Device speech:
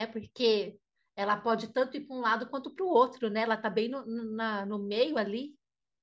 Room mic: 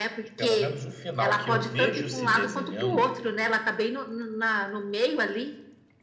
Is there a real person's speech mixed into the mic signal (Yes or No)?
Yes